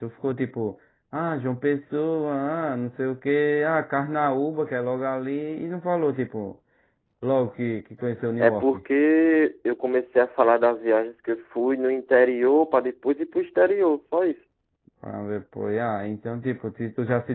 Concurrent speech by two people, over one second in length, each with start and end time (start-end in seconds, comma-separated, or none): none